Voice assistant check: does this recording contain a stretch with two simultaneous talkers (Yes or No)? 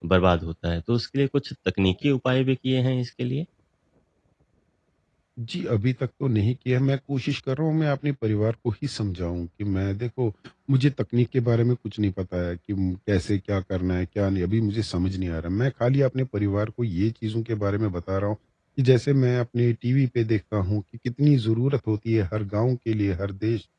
No